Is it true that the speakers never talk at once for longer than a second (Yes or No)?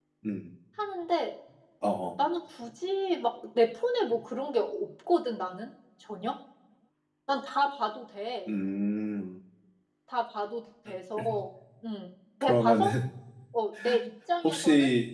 Yes